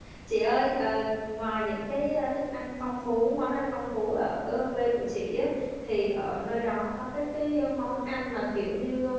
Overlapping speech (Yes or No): No